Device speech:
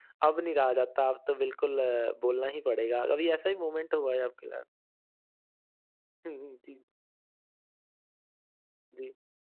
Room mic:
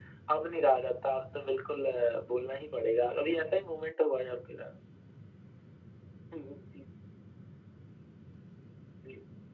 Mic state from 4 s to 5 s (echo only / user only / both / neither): echo only